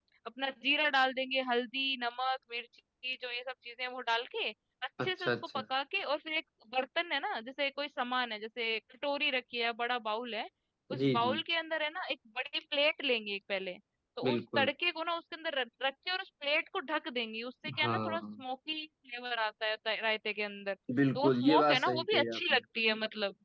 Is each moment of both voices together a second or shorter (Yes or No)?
No